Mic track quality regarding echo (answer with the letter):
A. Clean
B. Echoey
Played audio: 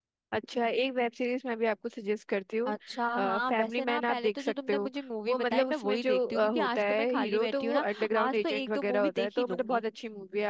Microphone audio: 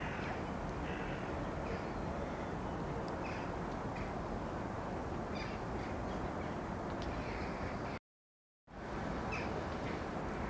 A